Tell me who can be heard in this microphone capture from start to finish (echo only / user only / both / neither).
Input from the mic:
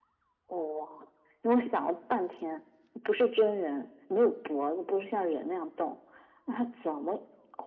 echo only